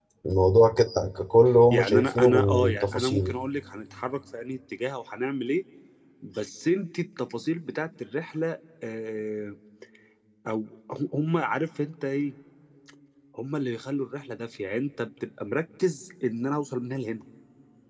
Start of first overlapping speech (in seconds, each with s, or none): 1.7 s